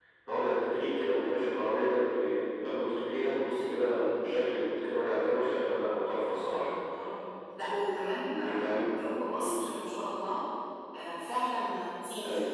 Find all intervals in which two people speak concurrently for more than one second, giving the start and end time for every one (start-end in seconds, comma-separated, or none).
none